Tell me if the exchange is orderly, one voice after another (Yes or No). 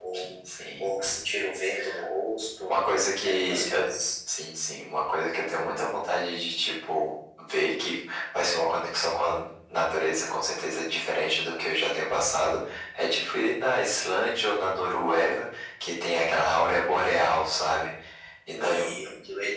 No